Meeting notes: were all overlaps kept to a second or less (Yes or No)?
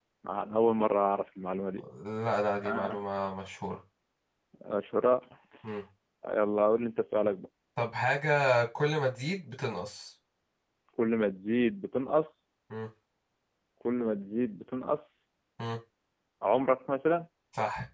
Yes